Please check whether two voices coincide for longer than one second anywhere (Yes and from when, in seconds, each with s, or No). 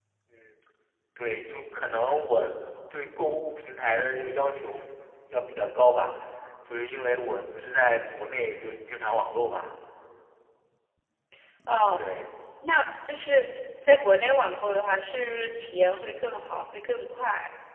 No